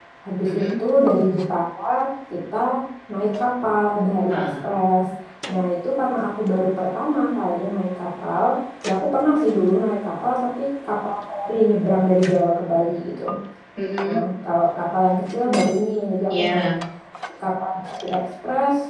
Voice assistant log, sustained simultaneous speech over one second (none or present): none